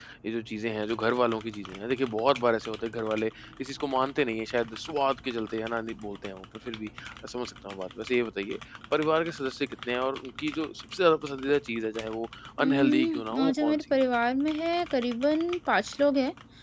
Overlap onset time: 12.6 s

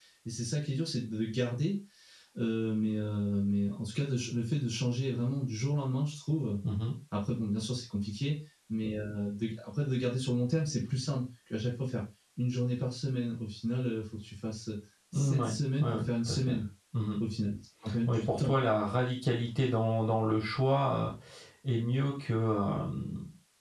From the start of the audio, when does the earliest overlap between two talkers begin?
15.1 s

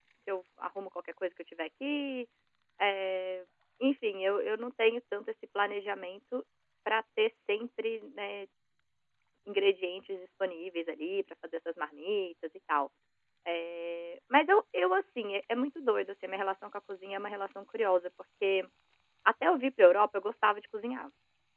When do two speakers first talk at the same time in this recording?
none

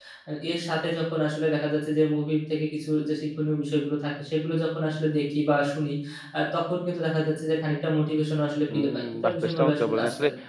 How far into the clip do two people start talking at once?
8.7 s

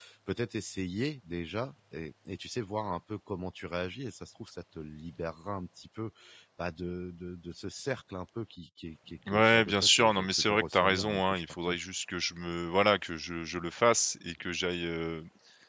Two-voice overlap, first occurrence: 9.3 s

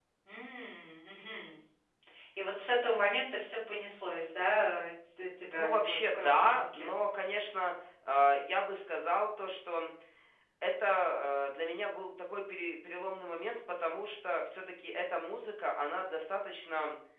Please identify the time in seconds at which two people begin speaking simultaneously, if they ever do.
5.6 s

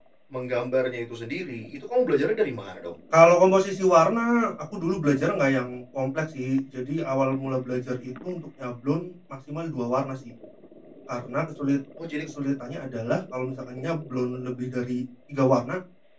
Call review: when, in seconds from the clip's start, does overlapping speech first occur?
none

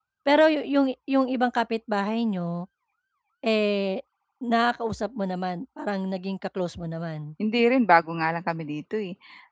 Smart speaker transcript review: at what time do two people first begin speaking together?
none

